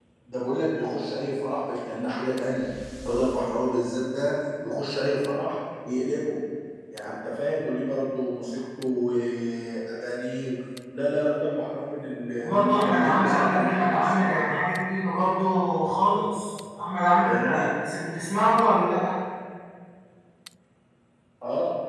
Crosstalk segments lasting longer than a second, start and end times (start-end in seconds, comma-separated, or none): 12.4-14.4